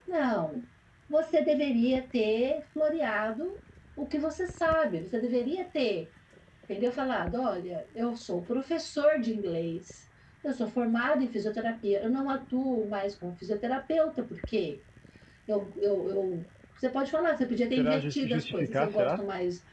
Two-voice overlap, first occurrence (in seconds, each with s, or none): 17.8 s